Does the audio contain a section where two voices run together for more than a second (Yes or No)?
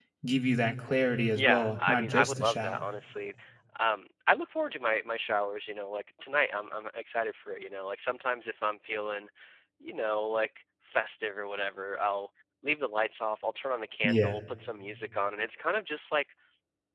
Yes